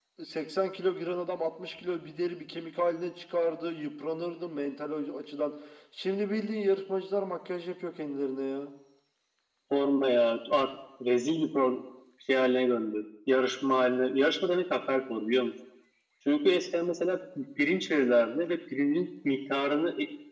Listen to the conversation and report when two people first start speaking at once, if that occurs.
none

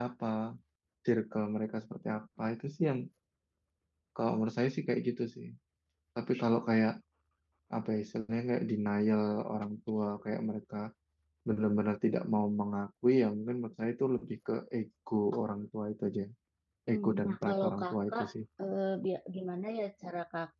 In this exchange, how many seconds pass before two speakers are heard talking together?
16.9 s

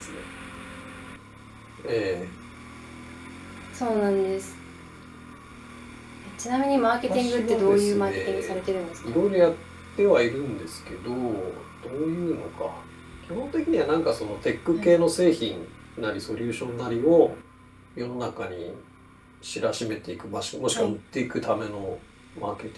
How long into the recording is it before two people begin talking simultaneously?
7.1 s

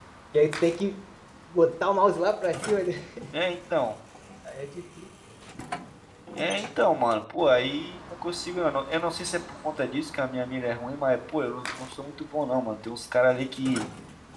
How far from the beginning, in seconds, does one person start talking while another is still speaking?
none

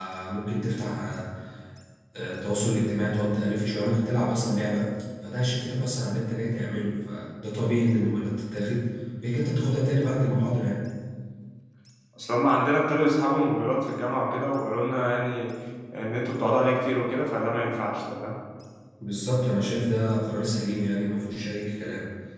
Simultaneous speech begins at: none

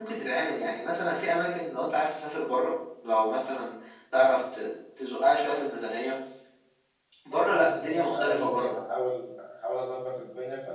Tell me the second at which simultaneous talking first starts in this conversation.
7.3 s

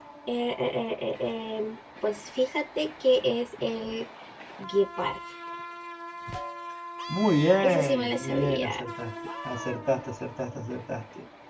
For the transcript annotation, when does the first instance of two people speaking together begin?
7.6 s

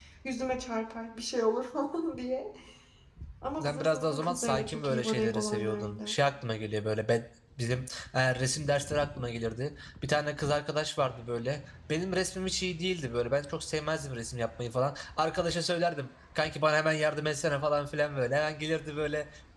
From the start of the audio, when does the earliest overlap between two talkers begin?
3.6 s

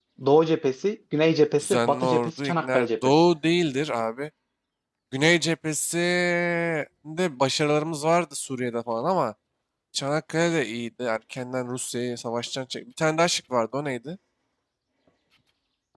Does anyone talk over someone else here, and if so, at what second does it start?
1.6 s

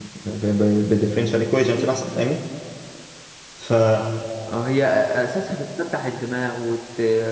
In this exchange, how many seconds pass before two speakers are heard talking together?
none

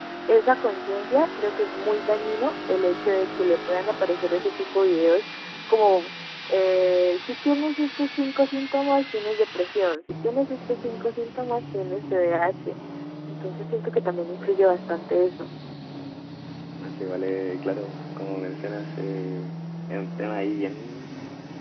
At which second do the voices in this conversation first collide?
none

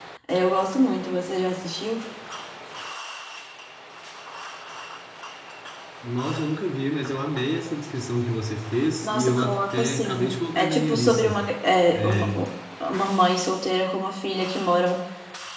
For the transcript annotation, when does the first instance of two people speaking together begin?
9.0 s

